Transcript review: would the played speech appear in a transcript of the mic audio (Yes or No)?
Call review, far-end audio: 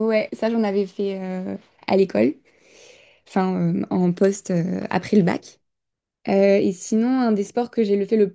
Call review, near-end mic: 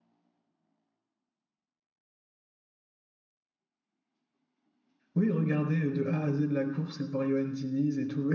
No